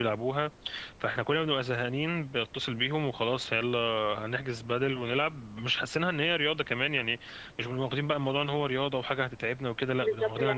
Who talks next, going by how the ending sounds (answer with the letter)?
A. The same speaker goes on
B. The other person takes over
B